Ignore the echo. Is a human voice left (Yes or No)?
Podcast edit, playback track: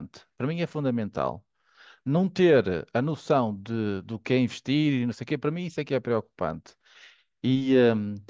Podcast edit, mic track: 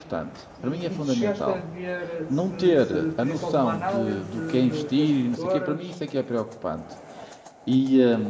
Yes